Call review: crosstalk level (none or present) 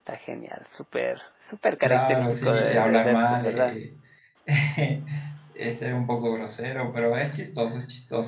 present